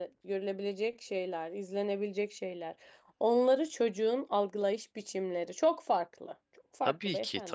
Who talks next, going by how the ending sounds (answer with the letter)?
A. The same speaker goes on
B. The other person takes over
B